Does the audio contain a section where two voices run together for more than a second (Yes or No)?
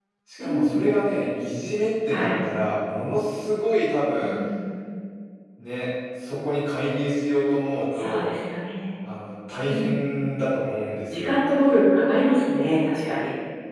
No